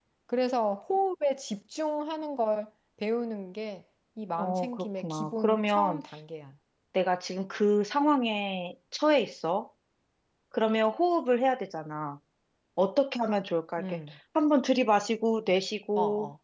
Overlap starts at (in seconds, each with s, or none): 4.4 s